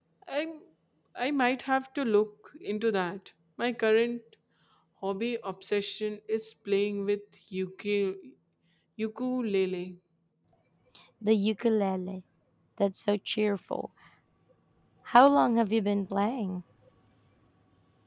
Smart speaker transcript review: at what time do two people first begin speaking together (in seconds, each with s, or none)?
none